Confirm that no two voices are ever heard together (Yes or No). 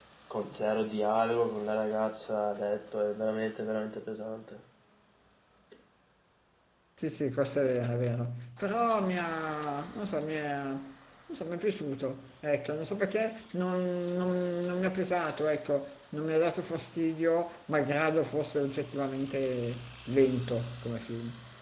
Yes